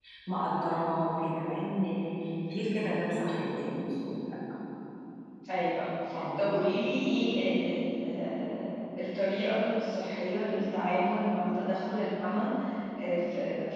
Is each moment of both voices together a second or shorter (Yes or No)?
Yes